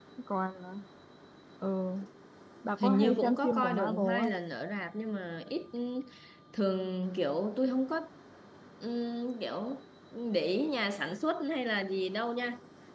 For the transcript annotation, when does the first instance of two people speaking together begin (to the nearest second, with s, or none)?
3 s